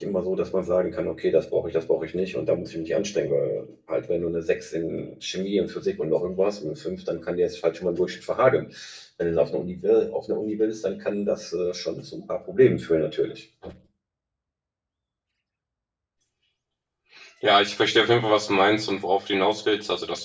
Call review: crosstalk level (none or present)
none